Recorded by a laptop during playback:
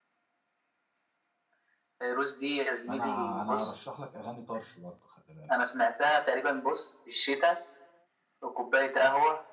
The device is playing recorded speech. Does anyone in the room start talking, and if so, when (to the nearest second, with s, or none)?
3 s